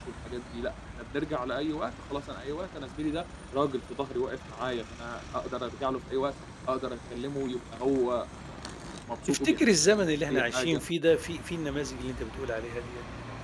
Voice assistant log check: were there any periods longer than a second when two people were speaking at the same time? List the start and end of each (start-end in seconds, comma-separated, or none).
9.3-10.8